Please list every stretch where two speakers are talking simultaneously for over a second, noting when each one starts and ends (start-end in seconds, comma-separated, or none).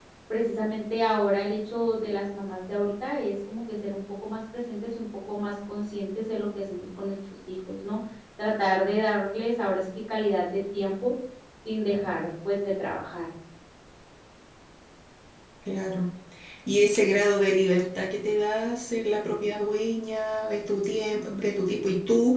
none